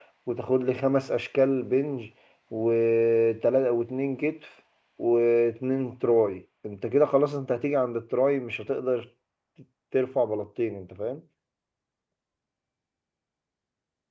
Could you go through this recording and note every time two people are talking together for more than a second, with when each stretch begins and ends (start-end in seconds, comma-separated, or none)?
none